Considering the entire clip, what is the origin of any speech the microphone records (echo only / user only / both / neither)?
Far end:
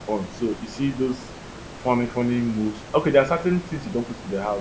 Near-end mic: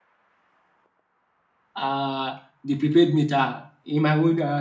user only